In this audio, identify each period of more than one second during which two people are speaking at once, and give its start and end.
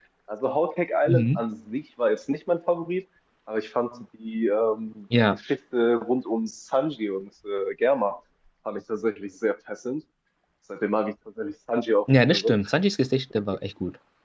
none

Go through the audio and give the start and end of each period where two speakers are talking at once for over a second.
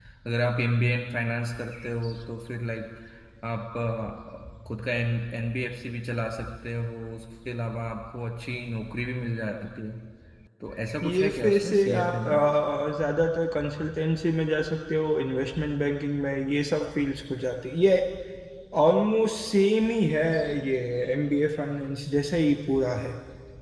11.0-12.3

